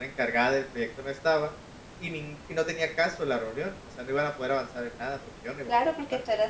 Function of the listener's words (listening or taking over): taking over